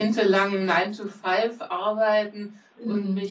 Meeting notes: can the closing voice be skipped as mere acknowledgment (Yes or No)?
Yes